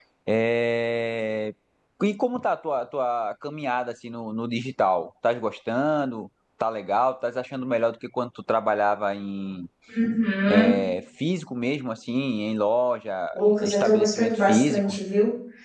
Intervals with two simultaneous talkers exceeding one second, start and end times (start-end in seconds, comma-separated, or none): 13.6-15.0